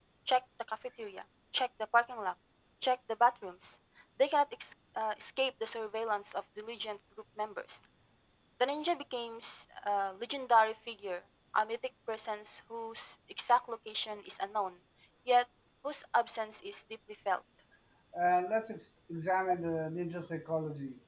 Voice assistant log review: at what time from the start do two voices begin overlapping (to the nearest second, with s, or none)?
none